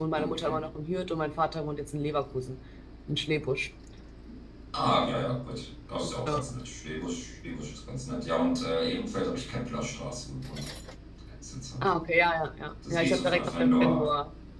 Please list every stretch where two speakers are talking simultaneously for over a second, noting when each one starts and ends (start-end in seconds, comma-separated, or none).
12.9-14.1